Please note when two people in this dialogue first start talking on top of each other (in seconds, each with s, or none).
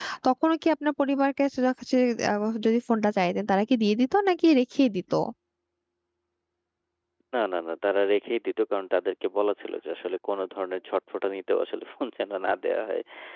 none